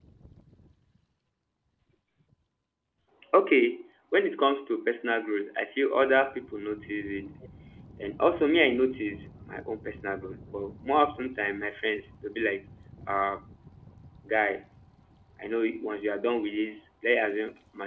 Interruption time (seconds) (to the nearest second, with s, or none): none